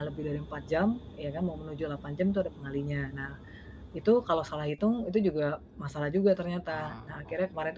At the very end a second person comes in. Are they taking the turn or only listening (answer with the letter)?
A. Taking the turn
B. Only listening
B